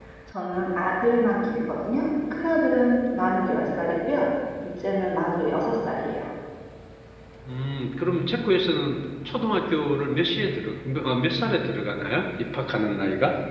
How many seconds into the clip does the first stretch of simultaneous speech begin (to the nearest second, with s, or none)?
none